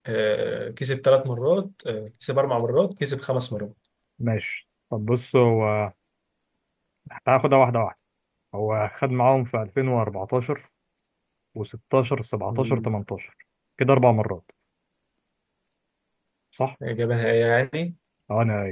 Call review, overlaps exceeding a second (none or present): none